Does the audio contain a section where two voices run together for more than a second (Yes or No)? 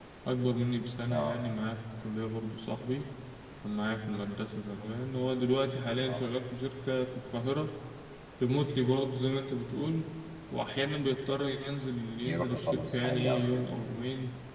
Yes